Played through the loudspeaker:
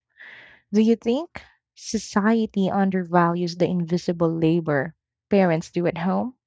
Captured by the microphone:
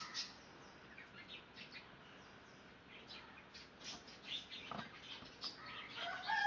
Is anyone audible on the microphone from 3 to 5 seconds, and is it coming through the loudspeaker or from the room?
neither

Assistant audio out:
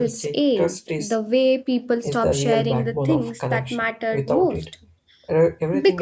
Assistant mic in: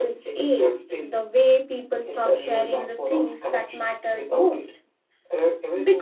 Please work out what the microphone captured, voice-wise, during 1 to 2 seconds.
echo only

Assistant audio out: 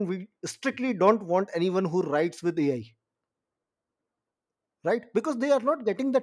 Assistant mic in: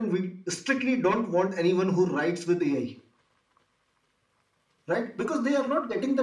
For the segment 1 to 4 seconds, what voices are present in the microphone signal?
echo only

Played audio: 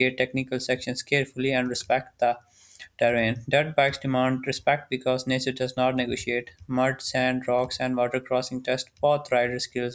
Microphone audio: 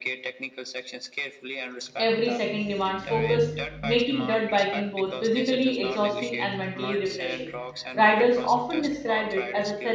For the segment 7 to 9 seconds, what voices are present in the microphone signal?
both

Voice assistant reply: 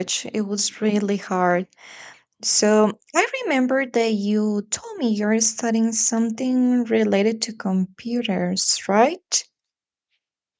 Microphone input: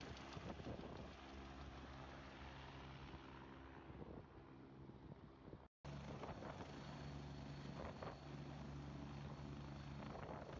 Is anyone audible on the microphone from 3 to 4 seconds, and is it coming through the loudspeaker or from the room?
neither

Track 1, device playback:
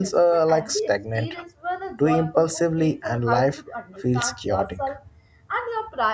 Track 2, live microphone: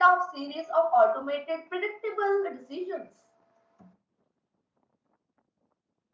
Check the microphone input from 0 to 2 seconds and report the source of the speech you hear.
user only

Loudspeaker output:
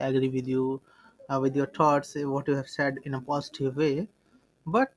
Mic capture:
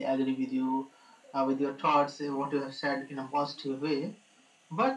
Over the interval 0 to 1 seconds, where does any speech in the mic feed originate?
echo only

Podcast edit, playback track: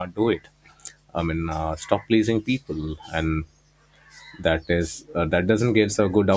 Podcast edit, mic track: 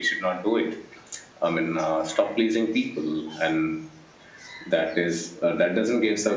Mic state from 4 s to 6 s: echo only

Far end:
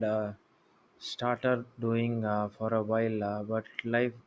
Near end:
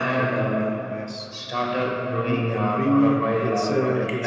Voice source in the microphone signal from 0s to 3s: both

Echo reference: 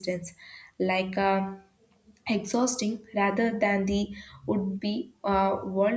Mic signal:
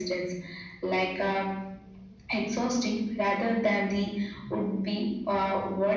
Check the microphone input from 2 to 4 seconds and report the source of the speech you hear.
echo only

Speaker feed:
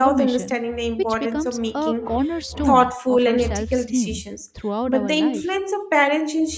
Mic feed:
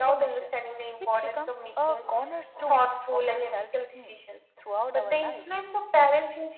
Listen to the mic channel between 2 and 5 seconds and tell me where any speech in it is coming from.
echo only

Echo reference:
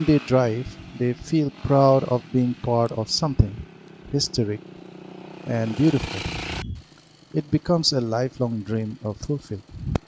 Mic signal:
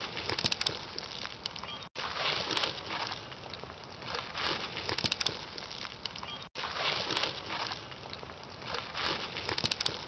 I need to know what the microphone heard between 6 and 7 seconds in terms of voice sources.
neither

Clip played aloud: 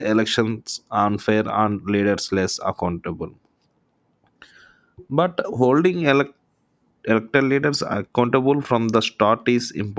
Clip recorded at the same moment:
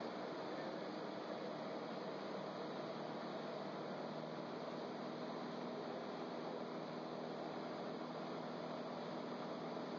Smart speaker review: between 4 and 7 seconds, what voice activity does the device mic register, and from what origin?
neither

